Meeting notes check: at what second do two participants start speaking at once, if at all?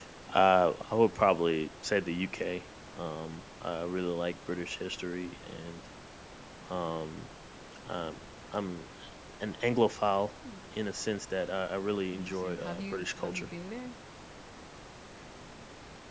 12.1 s

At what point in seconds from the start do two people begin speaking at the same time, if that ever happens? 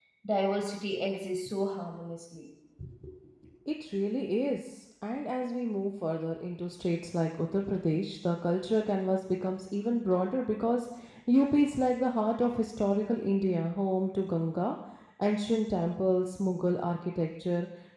none

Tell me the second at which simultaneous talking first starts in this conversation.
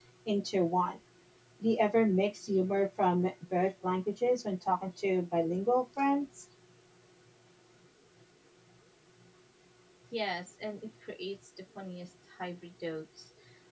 none

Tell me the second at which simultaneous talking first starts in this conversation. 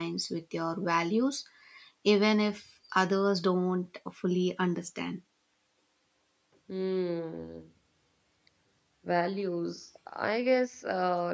none

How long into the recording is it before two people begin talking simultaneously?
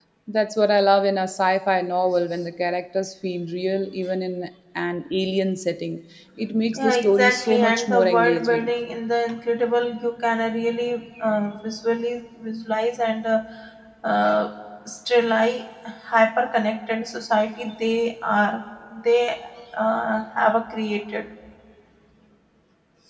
6.7 s

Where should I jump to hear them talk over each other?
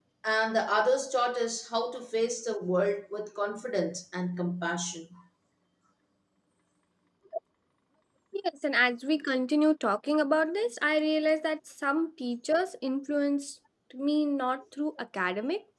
none

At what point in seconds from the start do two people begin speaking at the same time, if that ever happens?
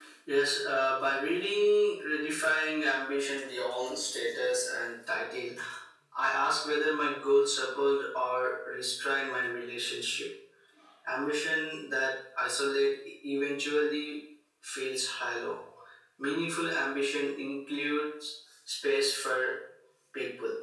none

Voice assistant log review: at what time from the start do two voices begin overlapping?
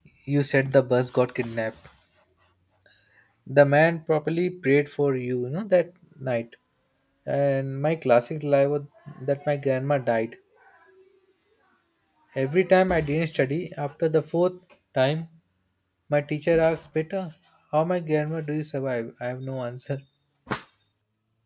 none

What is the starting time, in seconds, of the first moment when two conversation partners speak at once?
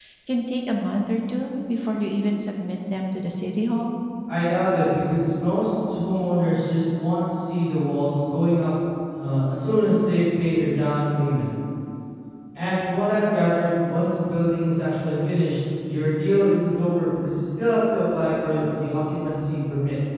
none

